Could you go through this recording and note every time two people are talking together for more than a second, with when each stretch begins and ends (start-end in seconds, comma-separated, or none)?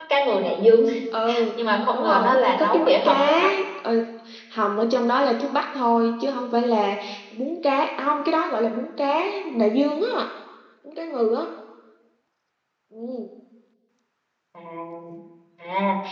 1.9-3.5